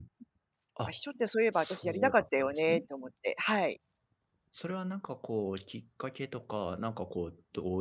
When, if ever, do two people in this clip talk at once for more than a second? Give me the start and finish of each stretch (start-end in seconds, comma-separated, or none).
1.5-2.8